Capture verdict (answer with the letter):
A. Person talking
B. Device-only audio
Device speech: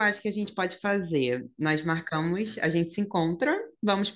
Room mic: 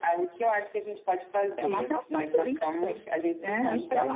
A